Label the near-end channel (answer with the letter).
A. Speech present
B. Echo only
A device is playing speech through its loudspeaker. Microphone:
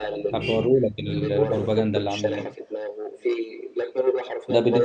A